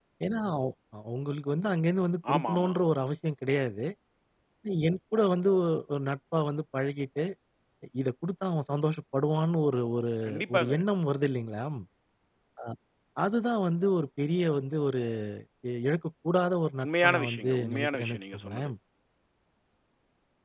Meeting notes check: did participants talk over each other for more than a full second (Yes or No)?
Yes